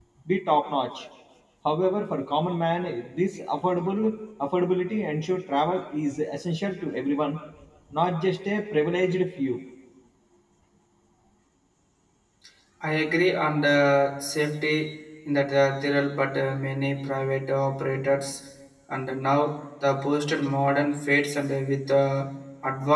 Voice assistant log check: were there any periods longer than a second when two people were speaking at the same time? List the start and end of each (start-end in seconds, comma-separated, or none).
none